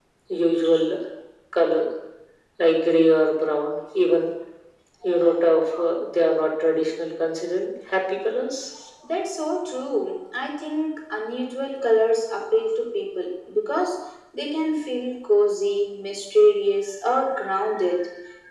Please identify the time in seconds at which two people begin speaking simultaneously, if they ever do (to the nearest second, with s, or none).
none